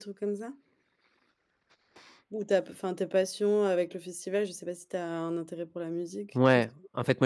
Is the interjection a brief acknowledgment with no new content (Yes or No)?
No